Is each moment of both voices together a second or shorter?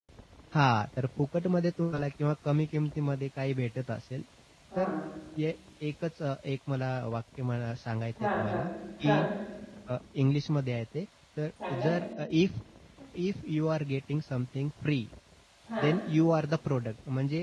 Yes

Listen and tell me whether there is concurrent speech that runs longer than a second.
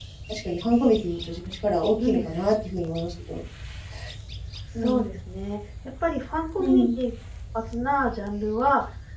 No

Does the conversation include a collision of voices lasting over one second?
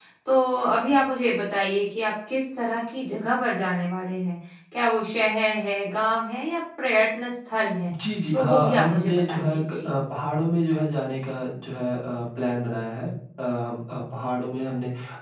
Yes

